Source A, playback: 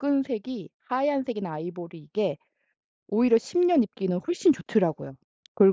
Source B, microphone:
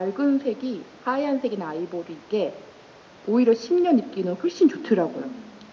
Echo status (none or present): present